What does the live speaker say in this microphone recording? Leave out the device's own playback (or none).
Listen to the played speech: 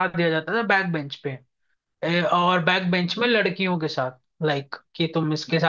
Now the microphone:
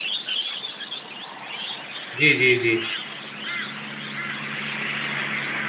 जी जी जी